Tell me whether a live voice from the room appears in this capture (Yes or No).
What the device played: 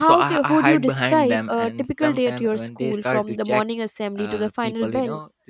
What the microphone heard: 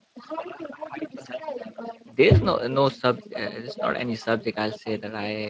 Yes